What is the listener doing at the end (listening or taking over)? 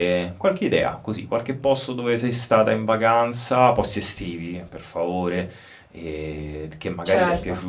listening